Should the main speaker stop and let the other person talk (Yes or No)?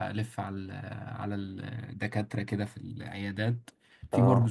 No